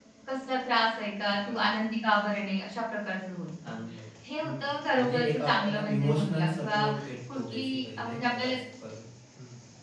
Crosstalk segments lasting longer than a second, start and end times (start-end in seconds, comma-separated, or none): 4.4-6.9, 7.3-8.5